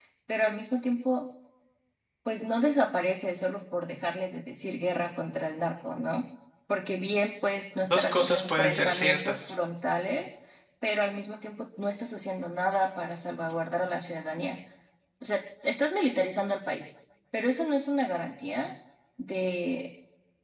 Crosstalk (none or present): present